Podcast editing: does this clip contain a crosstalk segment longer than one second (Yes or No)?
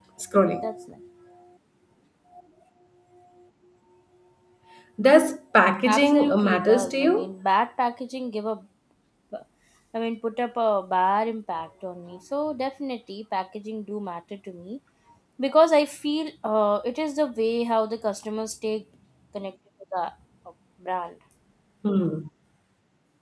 Yes